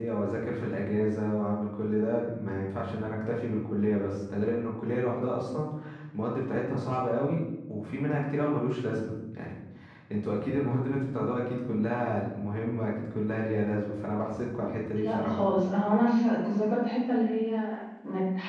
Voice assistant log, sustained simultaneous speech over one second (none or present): none